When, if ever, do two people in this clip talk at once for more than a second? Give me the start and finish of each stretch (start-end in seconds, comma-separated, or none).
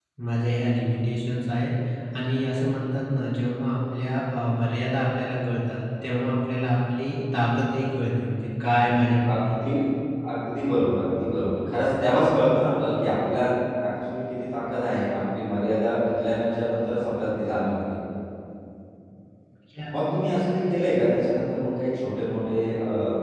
none